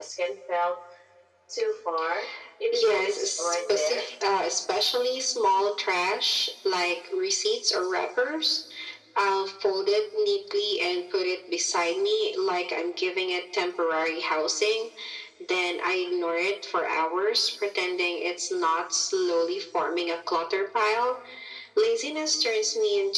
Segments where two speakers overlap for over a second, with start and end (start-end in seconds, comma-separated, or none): 2.7-4.0